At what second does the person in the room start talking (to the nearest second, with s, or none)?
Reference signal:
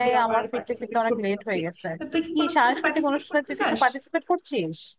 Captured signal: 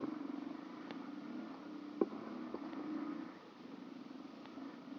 none